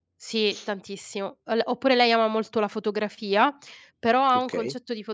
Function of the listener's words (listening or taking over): listening